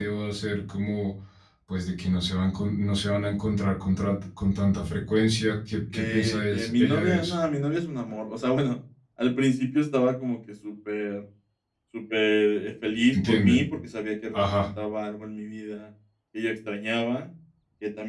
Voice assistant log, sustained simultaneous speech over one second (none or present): present